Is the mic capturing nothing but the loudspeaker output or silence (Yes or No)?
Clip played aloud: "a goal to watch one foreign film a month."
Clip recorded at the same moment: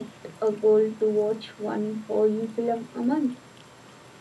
Yes